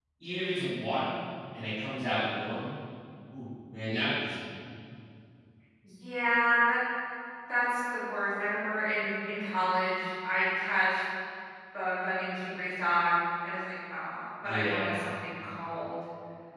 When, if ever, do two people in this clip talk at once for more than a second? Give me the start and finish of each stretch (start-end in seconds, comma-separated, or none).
none